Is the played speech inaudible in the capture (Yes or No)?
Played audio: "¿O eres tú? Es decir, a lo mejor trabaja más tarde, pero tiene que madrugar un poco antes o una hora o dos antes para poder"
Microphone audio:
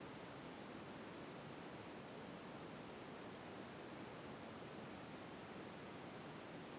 Yes